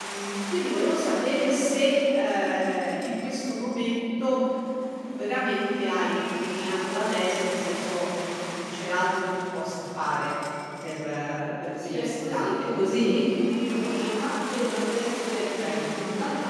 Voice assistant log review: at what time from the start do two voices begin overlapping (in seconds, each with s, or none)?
11.8 s